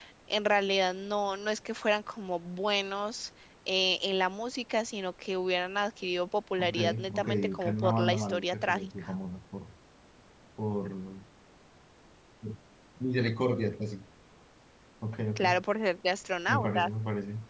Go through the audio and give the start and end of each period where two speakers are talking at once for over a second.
6.6-9.1

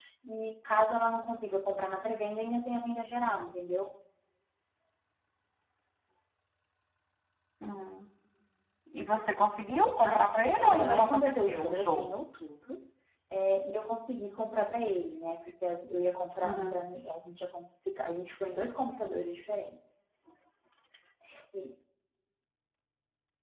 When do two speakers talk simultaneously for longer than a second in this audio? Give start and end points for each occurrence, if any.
10.1-12.1

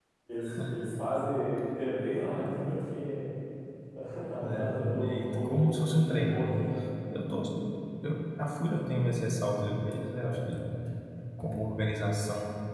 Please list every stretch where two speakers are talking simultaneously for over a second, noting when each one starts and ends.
4.4-6.5

